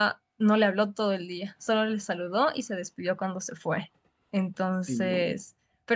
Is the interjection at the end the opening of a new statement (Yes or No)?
No